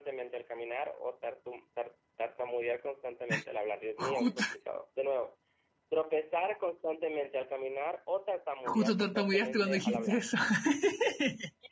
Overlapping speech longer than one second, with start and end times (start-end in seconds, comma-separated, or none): 8.6-10.2